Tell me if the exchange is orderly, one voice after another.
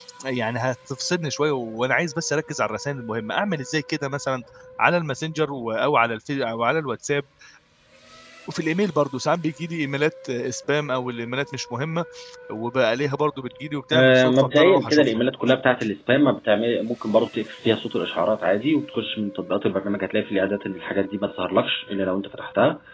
No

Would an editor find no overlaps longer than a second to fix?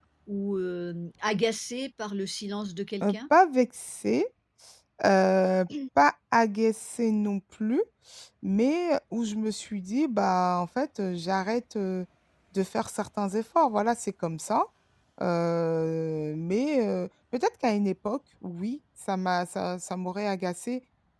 Yes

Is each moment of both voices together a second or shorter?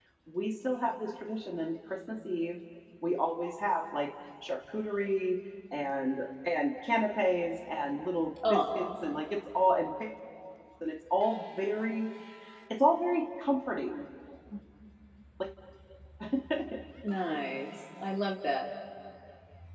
Yes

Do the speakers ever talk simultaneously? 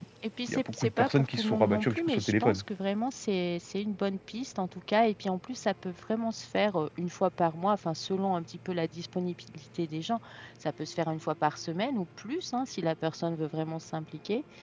Yes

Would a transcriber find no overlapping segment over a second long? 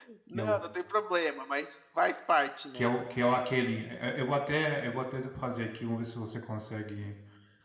Yes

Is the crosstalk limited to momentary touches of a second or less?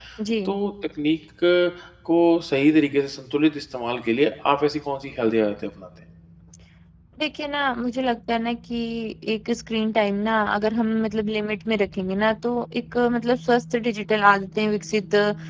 Yes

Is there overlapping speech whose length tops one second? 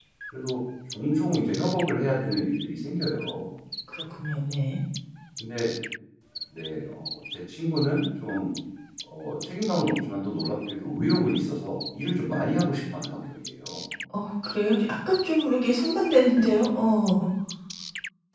No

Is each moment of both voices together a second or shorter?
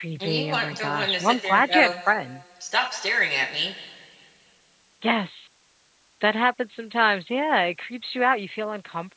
No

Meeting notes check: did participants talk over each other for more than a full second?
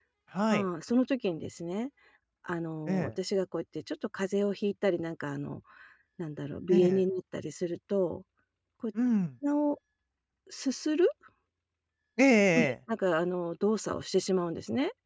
No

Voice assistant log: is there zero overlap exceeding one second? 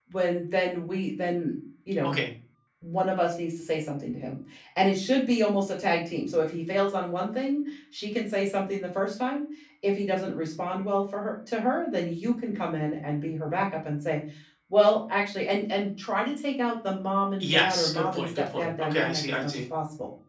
No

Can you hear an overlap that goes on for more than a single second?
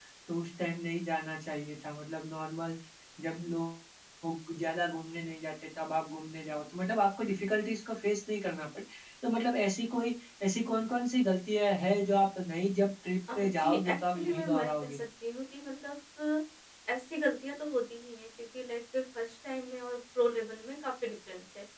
Yes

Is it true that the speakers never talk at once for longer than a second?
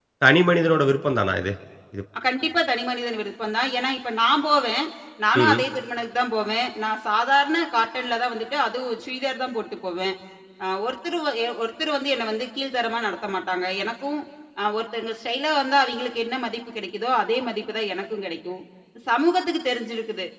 Yes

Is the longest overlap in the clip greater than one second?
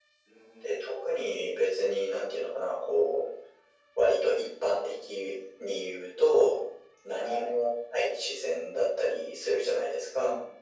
No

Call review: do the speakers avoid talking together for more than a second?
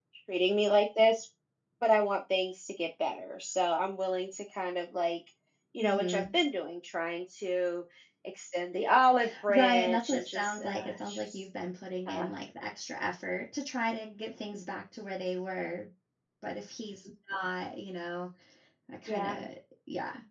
No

